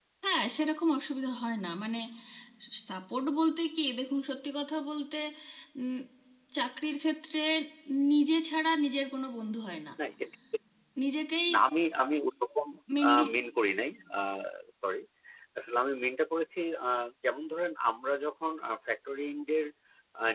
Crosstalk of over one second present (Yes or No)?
No